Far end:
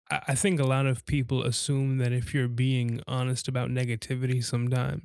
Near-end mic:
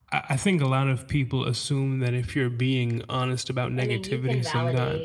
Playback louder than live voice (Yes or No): Yes